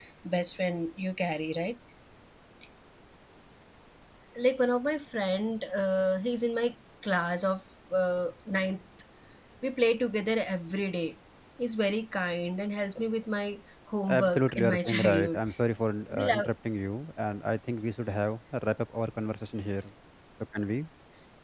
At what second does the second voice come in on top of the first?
14.2 s

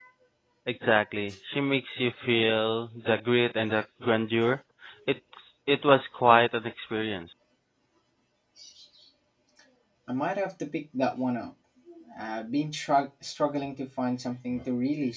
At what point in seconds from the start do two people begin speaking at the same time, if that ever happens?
none

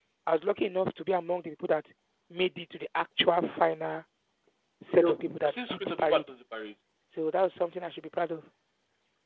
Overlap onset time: 4.9 s

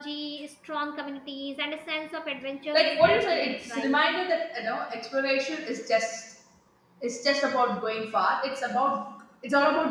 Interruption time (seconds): 2.7 s

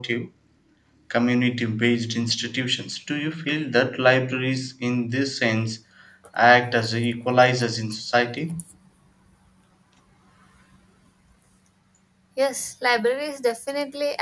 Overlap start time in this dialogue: none

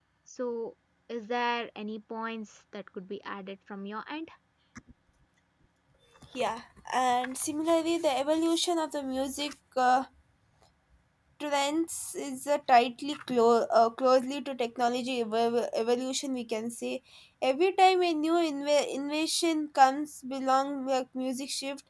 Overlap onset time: none

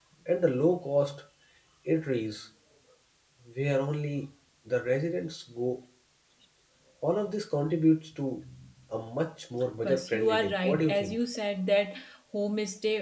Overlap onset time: 9.8 s

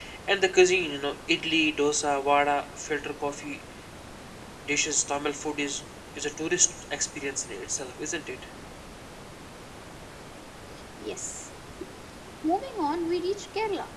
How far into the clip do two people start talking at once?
none

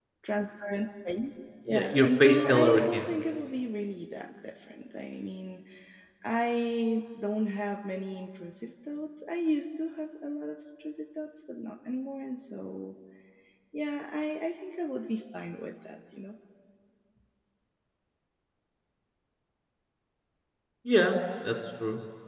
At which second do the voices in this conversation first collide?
1.7 s

